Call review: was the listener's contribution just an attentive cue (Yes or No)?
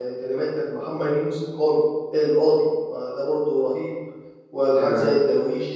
Yes